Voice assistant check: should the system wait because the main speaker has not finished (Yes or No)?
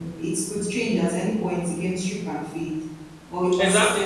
No